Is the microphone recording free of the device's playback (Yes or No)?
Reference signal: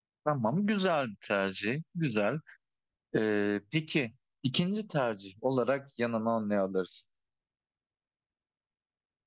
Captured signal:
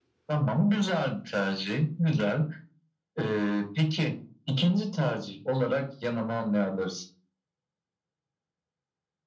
No